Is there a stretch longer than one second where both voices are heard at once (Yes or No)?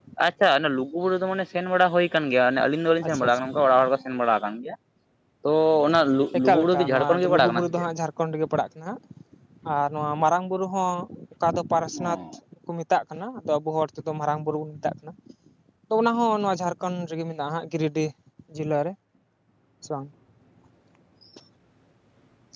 Yes